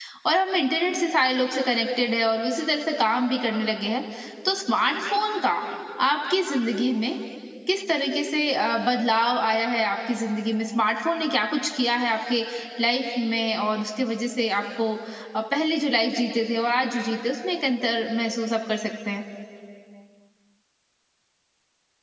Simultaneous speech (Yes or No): No